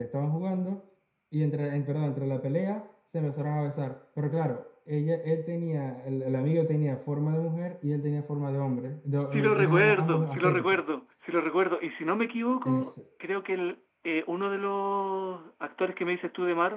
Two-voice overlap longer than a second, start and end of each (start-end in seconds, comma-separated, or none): 9.3-10.8